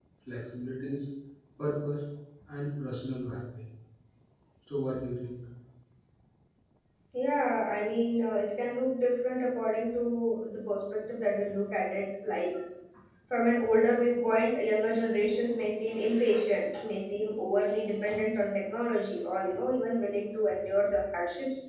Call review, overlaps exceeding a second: none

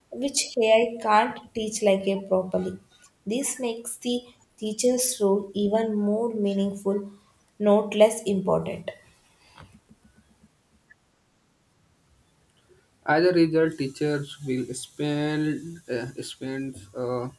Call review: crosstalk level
none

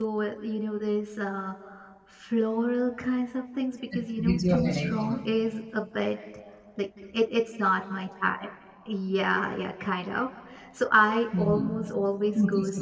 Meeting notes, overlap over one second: present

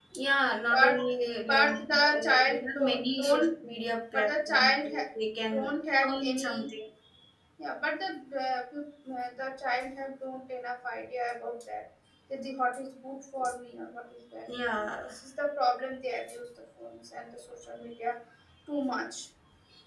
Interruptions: present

